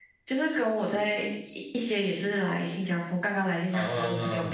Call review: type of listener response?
listening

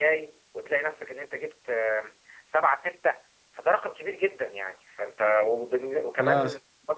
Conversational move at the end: listening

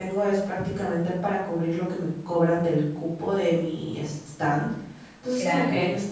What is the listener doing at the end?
listening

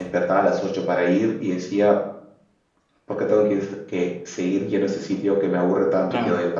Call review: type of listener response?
listening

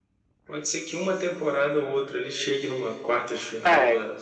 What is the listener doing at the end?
listening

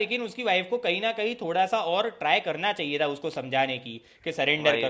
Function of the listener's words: listening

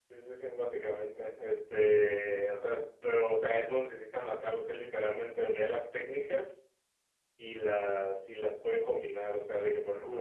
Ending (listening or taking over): listening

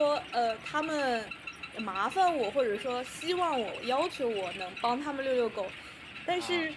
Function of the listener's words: listening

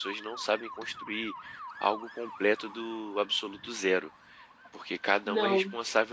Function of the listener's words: listening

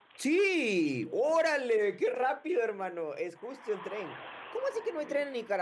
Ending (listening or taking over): listening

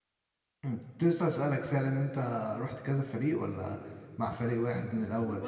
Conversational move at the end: taking over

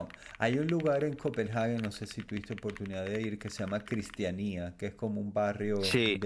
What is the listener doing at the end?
listening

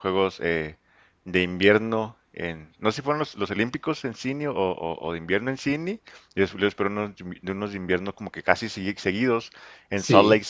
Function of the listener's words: listening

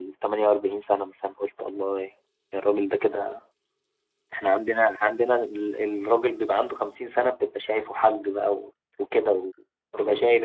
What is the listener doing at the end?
taking over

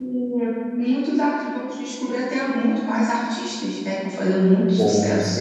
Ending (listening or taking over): taking over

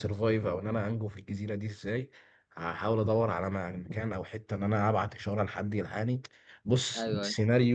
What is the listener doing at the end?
listening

